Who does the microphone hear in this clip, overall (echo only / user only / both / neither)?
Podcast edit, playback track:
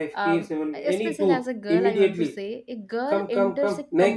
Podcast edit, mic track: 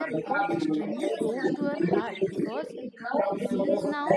both